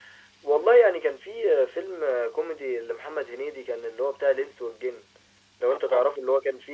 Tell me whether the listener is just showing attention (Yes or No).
Yes